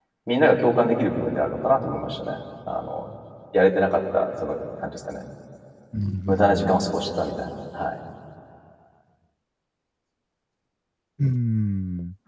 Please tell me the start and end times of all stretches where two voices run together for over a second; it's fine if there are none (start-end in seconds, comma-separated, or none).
none